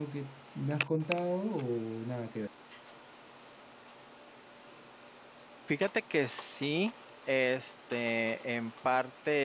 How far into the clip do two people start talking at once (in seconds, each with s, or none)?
none